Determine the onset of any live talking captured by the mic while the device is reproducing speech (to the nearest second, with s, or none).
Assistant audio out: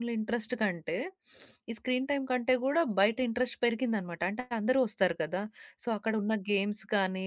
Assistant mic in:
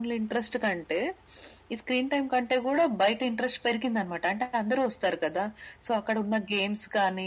none